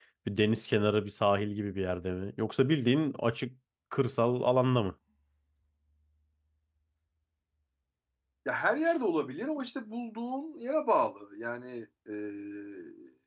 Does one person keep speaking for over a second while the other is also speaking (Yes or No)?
No